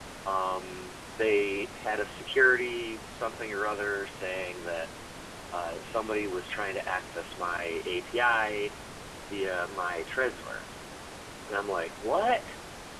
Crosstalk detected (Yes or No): No